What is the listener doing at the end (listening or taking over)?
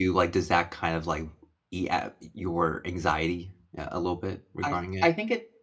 taking over